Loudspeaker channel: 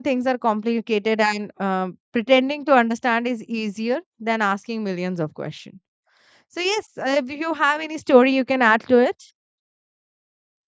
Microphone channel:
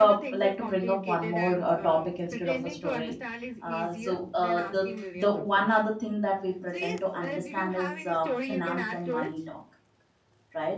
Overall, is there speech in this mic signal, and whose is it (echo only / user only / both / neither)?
both